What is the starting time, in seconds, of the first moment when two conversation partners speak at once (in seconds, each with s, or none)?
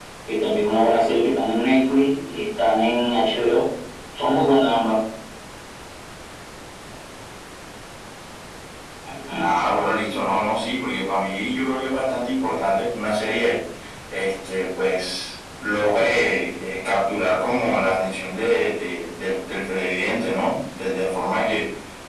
none